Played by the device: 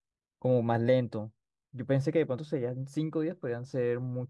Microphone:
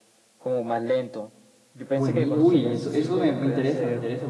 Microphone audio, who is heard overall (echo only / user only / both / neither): both